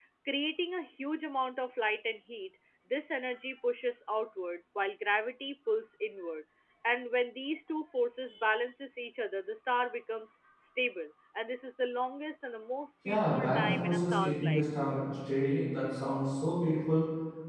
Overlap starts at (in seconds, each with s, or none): 13.1 s